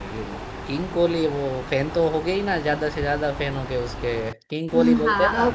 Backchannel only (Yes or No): No